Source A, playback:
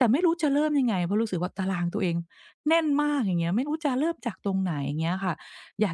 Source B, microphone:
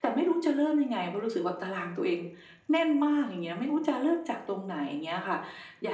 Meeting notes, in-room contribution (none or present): none